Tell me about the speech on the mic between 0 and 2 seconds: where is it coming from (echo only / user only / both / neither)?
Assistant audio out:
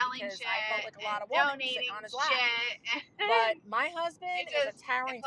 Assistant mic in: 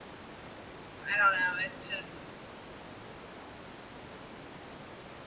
user only